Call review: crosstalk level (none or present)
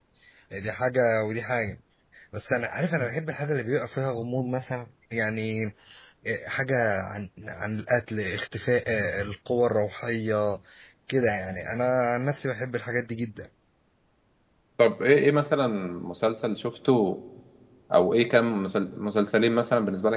none